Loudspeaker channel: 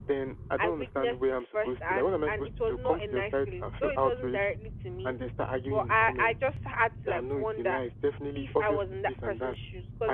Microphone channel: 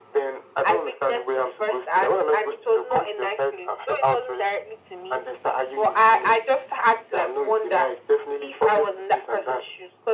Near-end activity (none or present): none